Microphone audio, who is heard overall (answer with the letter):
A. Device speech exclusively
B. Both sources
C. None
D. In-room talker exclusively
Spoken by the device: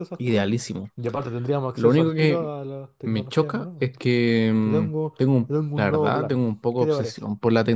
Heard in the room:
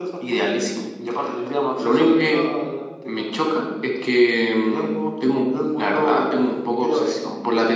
A